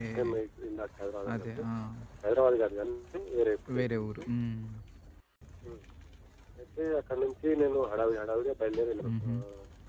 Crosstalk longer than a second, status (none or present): none